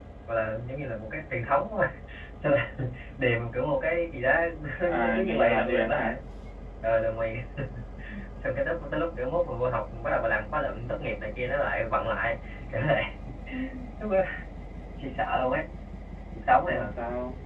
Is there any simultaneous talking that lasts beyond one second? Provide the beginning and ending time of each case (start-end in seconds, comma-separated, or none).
4.9-6.2